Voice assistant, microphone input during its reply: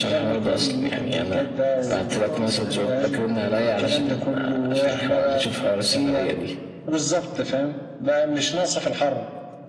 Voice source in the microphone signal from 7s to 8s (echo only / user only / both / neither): echo only